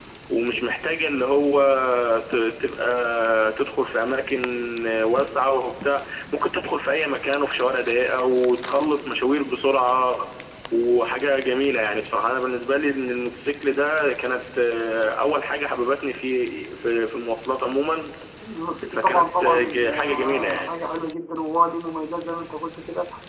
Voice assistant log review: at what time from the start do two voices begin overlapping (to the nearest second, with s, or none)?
19 s